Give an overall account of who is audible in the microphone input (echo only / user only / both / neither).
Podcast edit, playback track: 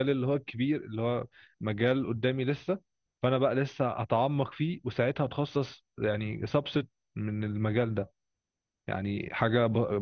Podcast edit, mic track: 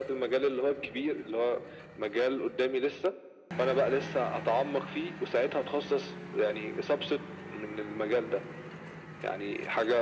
echo only